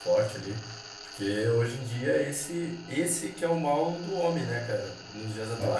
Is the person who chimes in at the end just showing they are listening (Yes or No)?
Yes